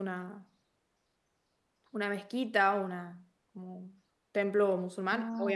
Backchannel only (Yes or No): Yes